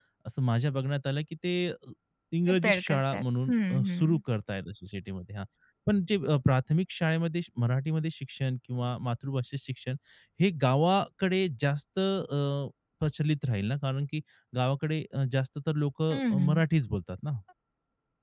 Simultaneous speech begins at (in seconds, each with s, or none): 2.5 s